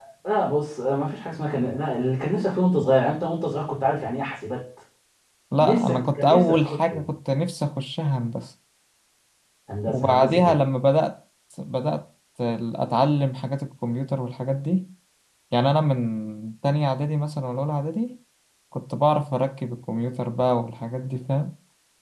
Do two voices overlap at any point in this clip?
Yes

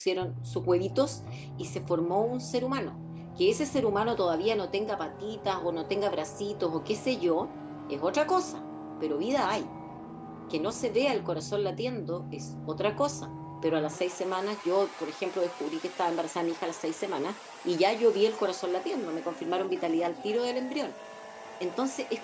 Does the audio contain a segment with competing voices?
No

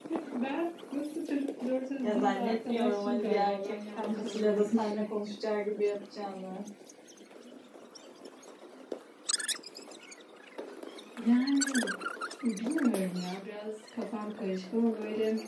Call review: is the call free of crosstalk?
No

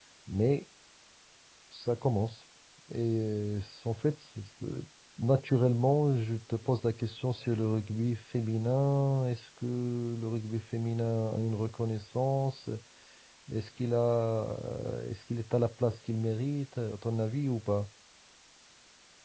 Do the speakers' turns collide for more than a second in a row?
No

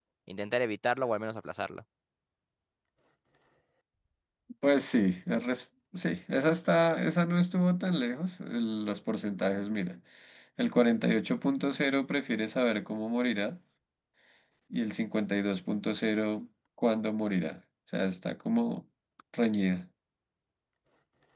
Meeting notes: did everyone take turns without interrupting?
Yes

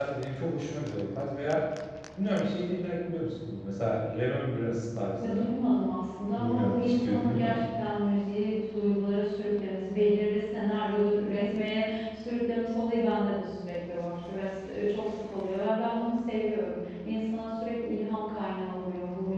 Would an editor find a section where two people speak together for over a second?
Yes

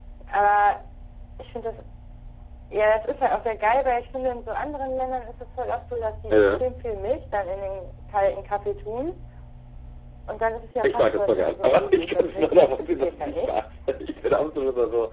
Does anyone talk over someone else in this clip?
Yes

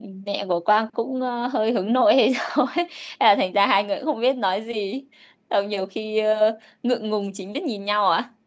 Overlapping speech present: No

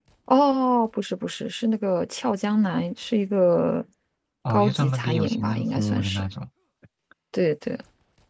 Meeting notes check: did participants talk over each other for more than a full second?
Yes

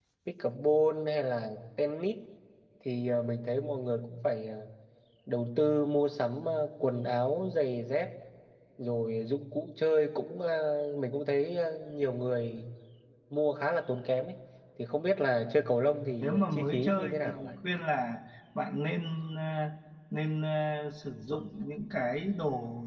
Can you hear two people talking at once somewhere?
Yes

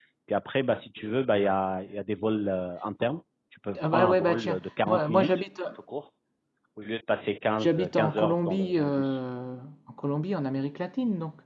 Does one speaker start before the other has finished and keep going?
Yes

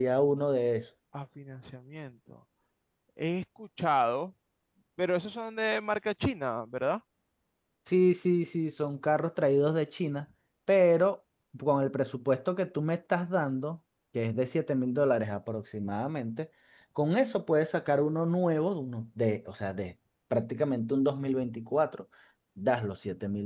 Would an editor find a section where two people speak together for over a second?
No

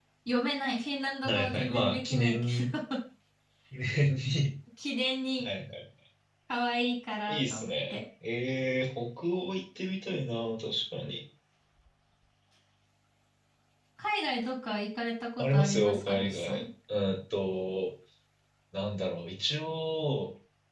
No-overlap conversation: No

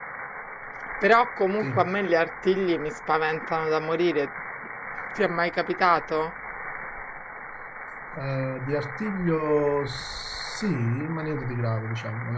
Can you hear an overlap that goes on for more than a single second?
No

